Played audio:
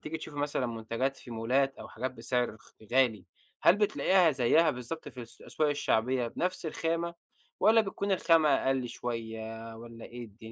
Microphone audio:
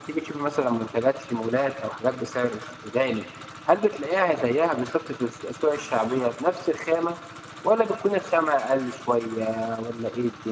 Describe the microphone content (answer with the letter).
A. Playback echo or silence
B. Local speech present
A